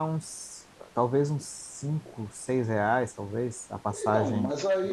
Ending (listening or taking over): taking over